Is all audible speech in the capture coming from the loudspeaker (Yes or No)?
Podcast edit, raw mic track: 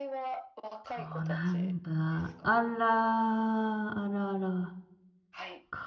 No